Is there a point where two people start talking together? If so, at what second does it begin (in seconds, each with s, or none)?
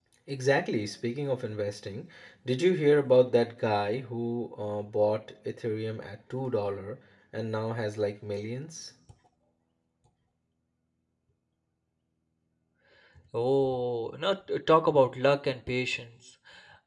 none